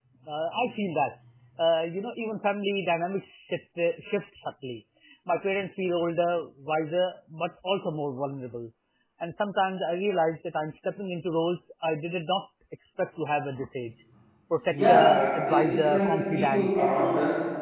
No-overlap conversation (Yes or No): No